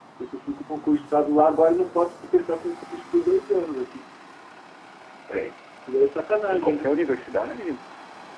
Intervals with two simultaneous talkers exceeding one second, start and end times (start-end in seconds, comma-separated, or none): none